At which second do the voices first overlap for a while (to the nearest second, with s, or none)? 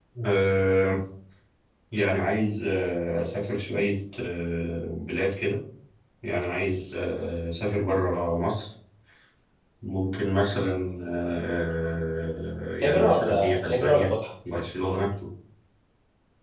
13 s